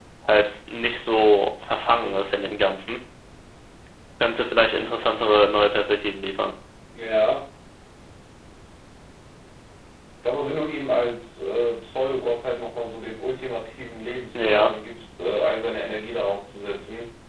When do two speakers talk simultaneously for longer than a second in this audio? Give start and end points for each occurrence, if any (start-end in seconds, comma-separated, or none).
none